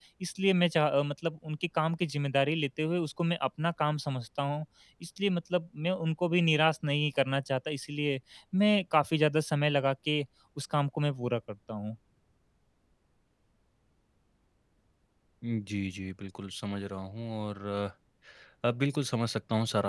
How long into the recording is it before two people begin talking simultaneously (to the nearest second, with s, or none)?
none